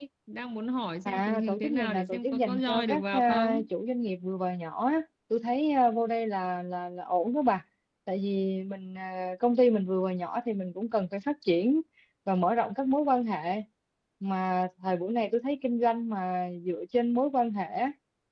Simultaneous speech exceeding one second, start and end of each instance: 1.1-3.6

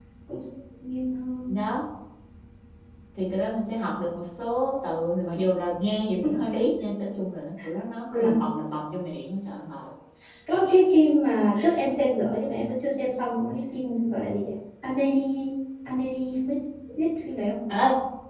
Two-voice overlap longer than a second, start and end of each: none

